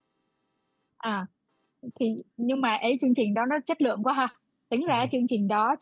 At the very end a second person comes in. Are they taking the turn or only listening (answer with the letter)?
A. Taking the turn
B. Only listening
B